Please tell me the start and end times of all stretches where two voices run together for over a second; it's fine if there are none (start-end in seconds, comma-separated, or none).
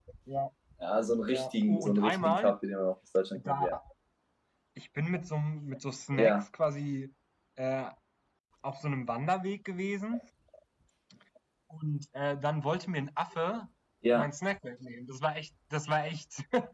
1.3-2.5